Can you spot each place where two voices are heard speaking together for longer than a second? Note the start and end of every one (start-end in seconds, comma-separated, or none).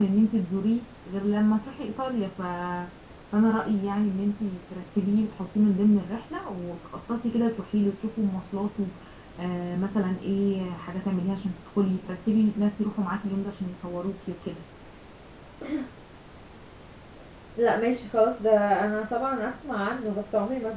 none